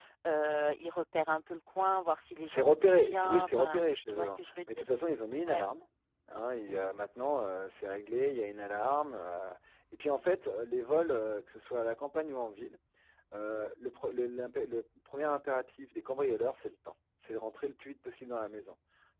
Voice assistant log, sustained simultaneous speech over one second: present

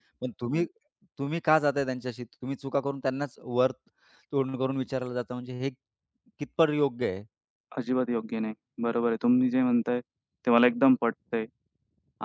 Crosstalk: none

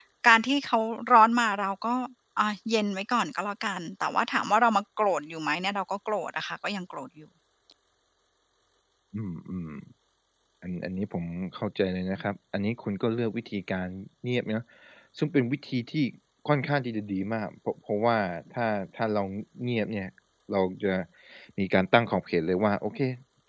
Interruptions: none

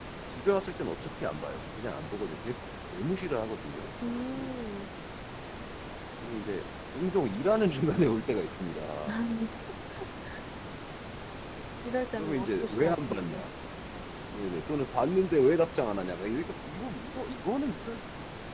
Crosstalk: present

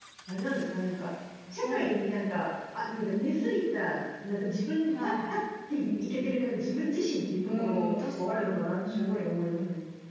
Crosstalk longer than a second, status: present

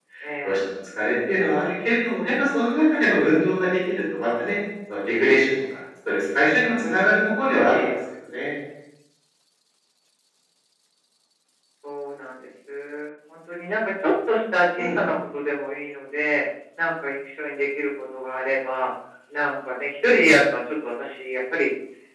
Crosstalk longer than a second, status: none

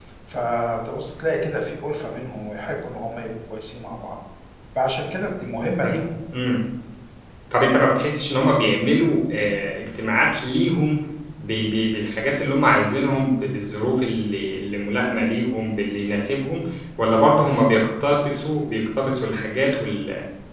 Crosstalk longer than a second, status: none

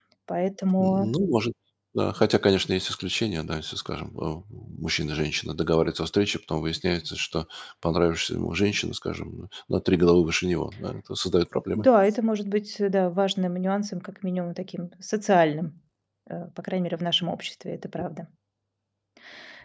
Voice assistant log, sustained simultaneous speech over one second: none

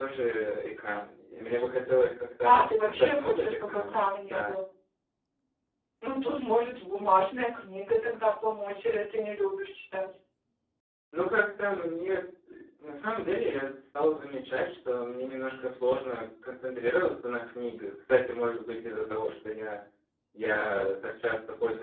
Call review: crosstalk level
present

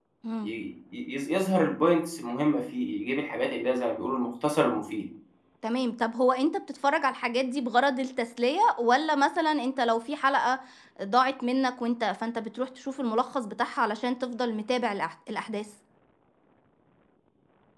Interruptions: none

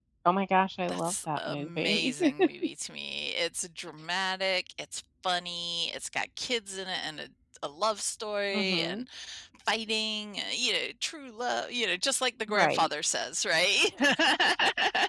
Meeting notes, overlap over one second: present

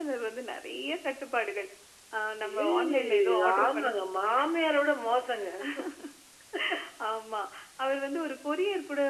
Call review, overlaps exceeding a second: present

